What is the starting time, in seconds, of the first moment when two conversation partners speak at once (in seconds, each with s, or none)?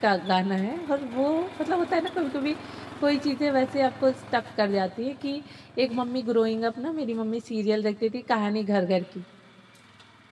none